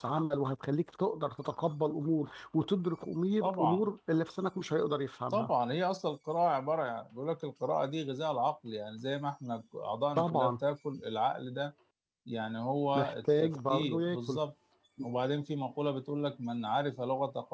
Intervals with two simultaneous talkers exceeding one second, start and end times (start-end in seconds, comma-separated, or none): 13.0-14.4